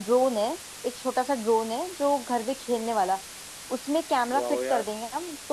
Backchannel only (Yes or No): Yes